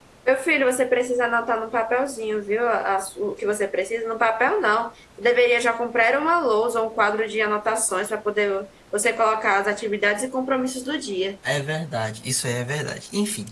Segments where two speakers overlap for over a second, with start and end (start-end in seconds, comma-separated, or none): none